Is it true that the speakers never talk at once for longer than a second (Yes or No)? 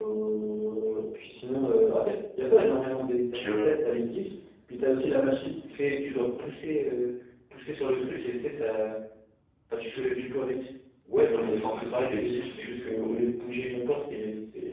No